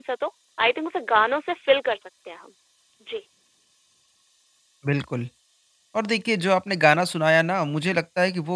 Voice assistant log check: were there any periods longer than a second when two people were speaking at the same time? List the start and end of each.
none

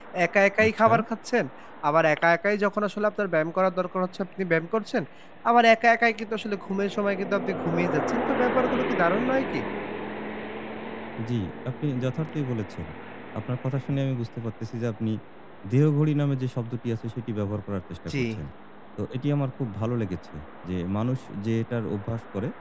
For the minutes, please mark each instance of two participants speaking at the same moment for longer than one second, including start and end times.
none

